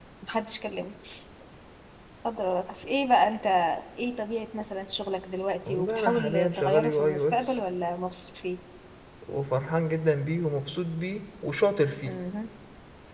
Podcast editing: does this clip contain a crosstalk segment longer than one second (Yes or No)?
Yes